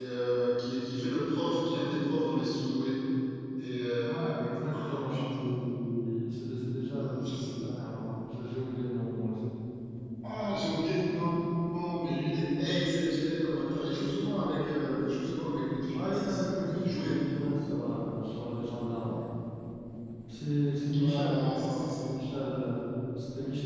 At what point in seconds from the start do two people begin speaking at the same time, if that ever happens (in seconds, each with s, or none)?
4.0 s